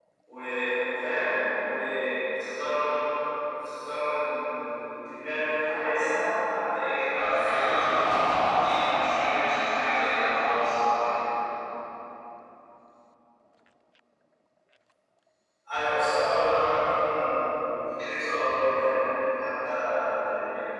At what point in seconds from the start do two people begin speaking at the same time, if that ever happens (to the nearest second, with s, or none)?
7 s